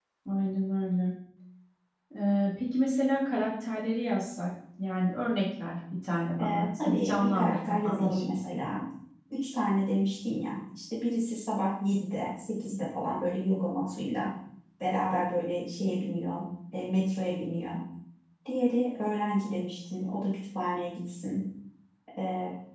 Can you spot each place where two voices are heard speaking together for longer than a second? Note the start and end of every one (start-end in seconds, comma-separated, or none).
6.4-8.4